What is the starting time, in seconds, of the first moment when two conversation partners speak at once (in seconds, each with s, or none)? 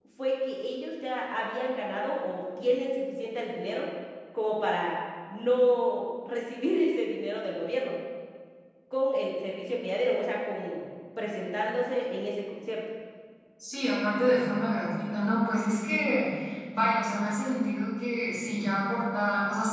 none